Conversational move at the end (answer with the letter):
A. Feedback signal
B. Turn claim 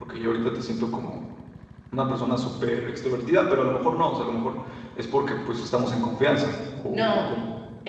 B